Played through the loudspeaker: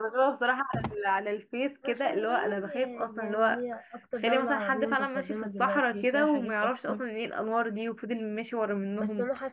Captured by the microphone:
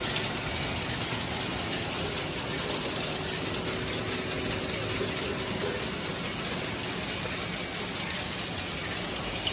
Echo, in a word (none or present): none